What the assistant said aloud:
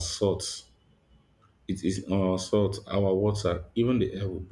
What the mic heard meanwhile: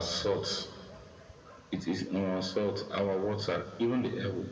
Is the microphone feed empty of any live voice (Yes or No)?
Yes